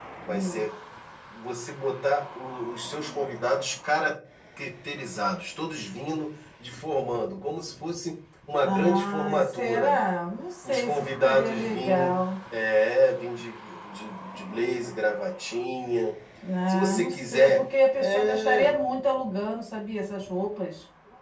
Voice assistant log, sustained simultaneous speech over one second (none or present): present